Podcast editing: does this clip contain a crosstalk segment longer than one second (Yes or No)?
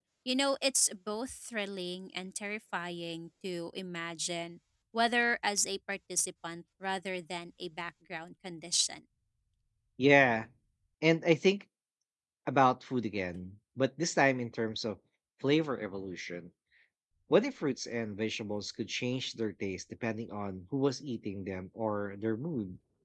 No